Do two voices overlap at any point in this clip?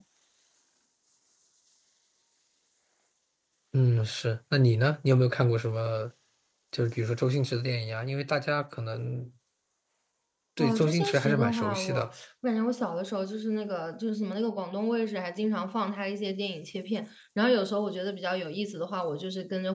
Yes, from 10.6 s

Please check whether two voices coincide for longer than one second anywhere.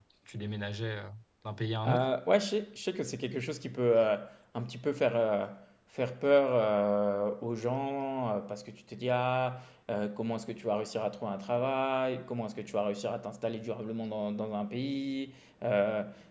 No

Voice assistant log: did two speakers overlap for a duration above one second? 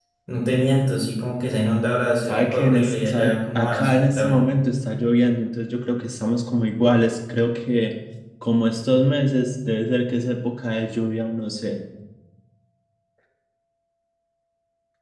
Yes, from 2.2 s

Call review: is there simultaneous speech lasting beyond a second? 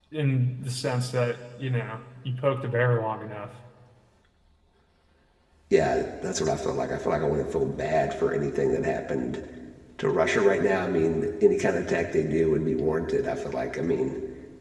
No

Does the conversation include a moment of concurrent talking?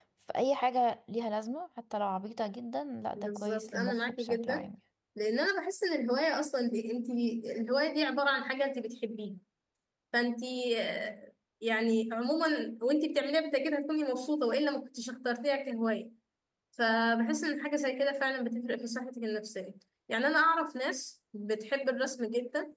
Yes, from 3.1 s

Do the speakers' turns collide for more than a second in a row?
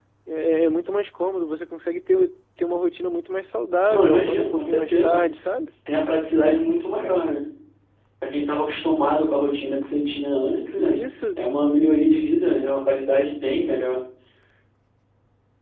Yes, from 3.9 s

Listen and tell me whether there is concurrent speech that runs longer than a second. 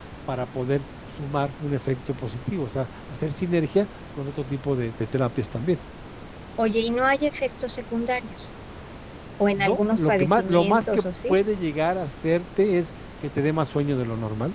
Yes, from 9.6 s

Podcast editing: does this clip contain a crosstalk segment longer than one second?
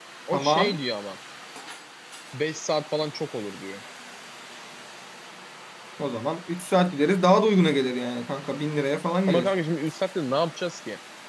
No

